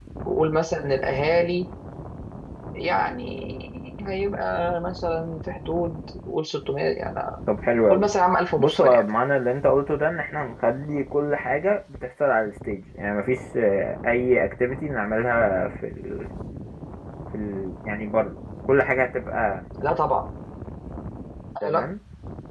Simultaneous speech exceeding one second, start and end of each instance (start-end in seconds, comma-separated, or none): none